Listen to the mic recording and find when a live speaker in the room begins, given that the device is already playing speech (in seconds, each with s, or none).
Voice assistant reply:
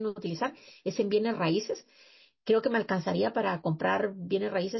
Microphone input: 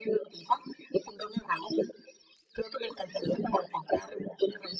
none